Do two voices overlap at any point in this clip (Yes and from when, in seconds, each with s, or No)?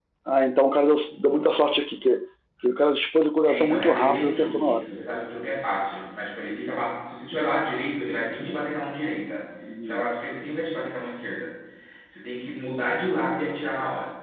Yes, from 3.4 s